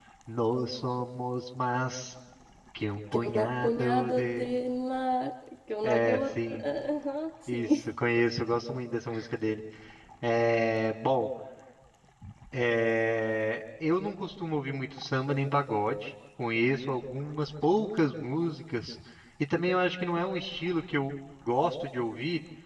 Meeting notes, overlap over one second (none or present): present